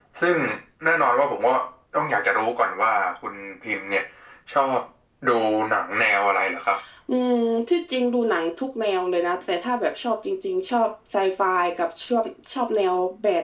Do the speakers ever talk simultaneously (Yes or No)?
No